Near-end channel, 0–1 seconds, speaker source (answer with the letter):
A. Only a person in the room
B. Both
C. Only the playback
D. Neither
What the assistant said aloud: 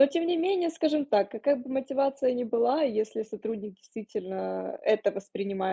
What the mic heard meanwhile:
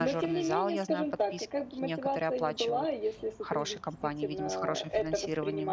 B